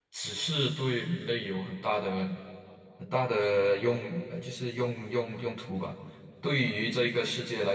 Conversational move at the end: listening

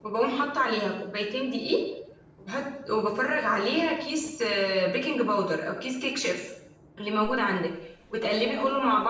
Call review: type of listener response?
listening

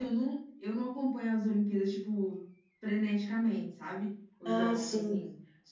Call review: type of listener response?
listening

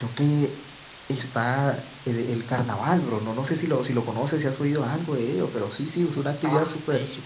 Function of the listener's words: taking over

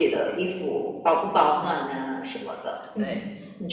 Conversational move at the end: taking over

